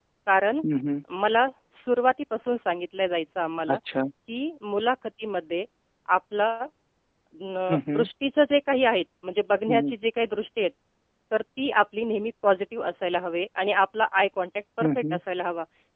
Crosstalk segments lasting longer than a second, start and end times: none

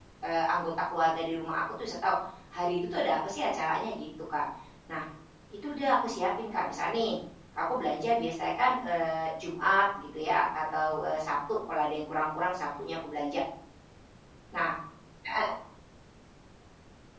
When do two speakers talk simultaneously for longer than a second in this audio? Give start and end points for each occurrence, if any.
none

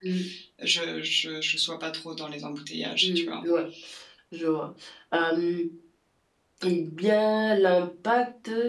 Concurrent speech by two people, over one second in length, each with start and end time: none

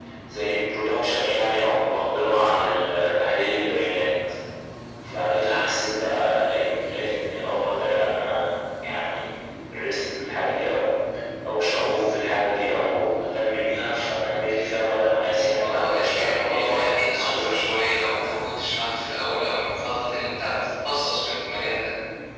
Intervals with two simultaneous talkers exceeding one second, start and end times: 15.7-17.6

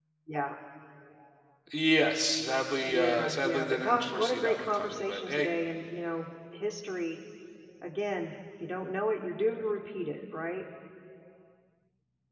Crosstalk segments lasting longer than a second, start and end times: 2.8-5.5

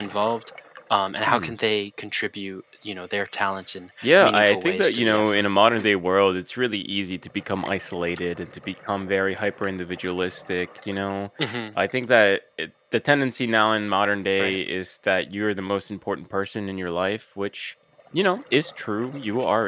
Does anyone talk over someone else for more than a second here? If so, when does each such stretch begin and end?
4.0-5.5

